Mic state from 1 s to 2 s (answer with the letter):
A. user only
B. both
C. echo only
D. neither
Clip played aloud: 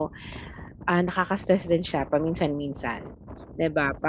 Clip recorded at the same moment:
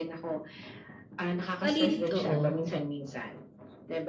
B